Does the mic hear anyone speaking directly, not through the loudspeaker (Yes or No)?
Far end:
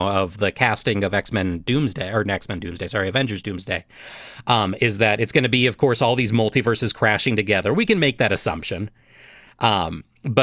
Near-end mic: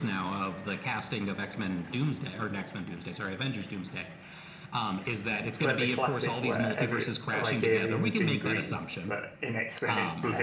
Yes